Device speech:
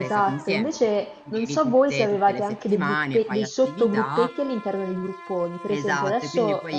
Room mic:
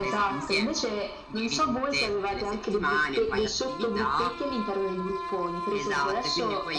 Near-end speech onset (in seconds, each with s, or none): none